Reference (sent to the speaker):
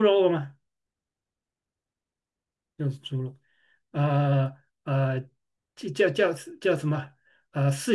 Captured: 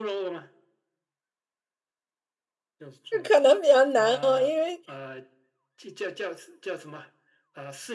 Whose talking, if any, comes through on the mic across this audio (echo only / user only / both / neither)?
both